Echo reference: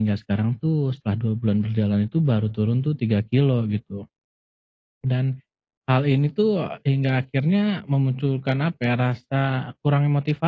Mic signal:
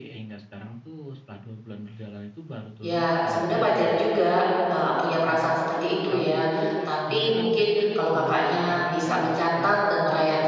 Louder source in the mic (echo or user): user